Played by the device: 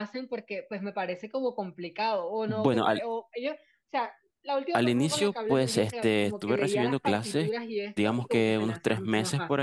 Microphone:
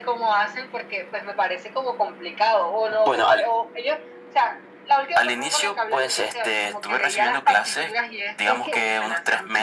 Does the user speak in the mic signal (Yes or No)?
Yes